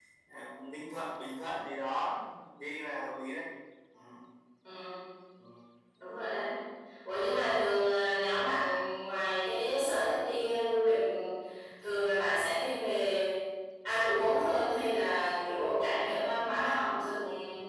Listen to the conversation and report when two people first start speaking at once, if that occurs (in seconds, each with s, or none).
none